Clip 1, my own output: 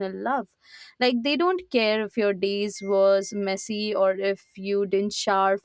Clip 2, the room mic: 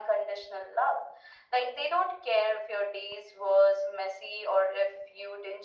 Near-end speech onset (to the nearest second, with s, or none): none